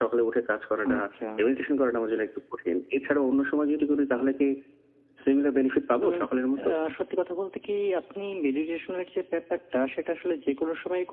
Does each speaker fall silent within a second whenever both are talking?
Yes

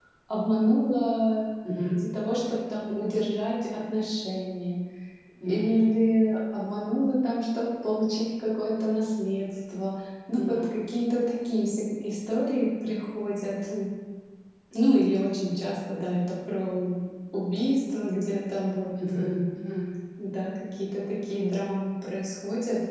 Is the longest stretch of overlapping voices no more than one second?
Yes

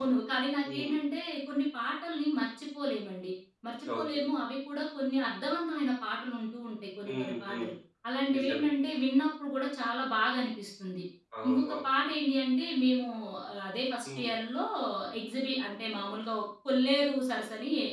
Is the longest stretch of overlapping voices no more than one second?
Yes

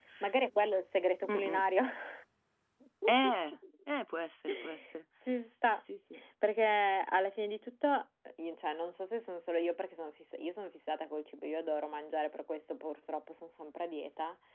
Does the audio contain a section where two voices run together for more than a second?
No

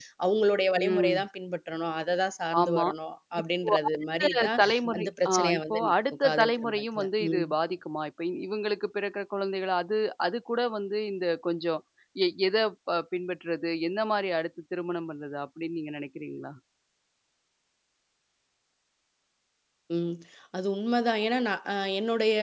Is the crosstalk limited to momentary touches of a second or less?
No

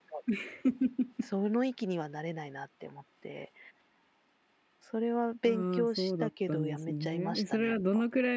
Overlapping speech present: Yes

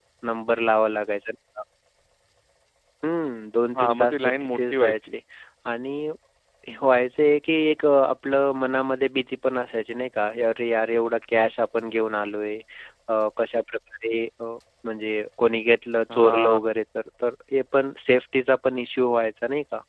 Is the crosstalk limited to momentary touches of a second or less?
No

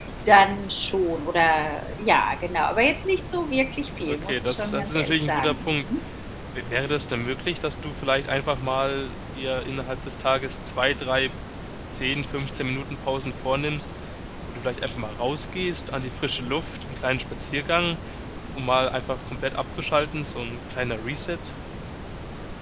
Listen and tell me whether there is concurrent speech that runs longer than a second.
Yes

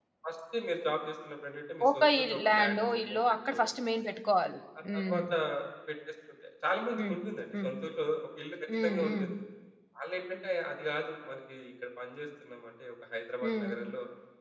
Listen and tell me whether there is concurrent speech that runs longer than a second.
Yes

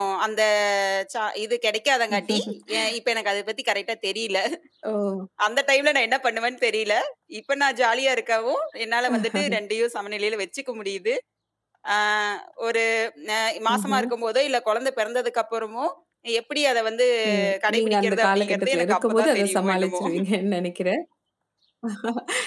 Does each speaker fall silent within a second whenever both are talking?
No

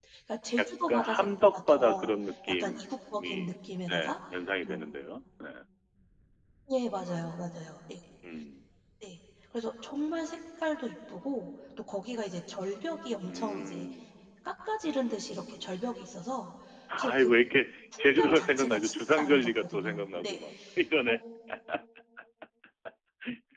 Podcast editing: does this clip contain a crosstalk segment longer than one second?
Yes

